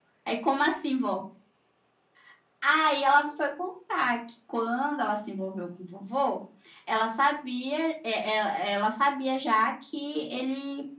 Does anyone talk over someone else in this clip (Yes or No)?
No